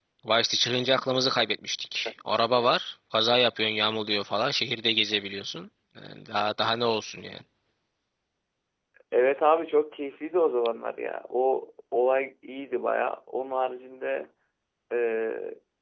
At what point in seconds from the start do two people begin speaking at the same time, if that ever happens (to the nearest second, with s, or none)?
none